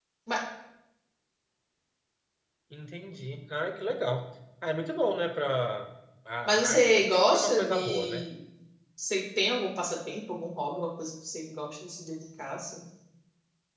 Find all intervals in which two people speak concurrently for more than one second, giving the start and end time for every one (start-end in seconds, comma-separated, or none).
6.5-8.2